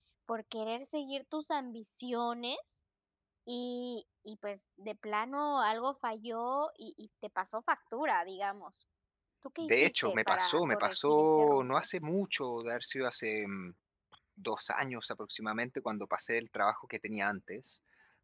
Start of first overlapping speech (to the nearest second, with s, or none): 10 s